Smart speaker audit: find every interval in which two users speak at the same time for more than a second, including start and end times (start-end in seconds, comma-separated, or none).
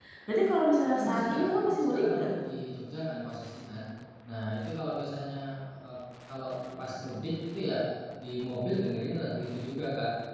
0.8-2.2